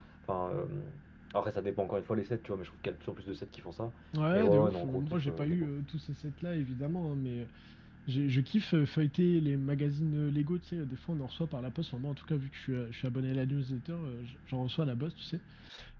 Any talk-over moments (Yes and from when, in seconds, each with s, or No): Yes, from 4.3 s